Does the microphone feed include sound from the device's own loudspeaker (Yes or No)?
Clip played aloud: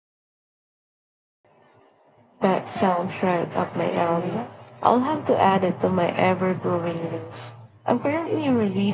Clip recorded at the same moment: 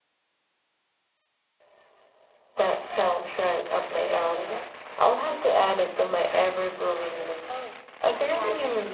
Yes